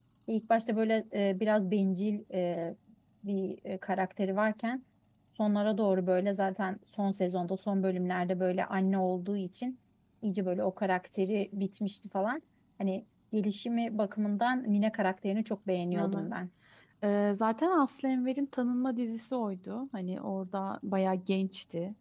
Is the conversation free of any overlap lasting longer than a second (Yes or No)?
Yes